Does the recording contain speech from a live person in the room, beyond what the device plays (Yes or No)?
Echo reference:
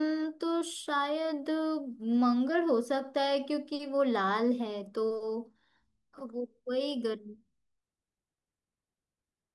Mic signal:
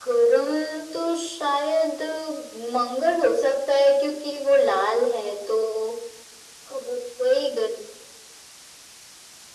No